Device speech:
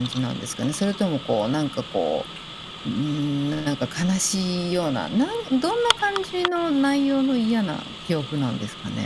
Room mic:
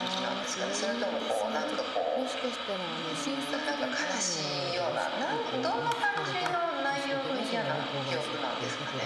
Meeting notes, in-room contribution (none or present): present